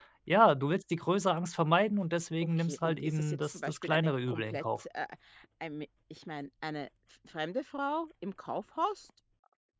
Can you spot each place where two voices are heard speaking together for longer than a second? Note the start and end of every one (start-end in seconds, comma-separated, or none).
2.6-4.6